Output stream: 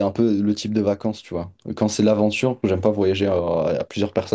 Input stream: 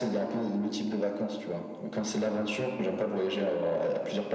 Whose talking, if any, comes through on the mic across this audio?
echo only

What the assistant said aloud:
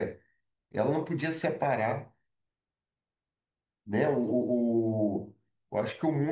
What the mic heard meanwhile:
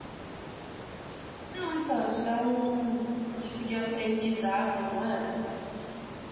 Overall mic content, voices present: user only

